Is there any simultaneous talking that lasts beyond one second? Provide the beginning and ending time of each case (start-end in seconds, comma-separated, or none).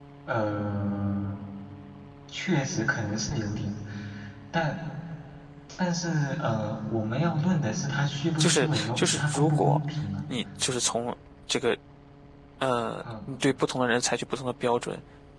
8.4-9.8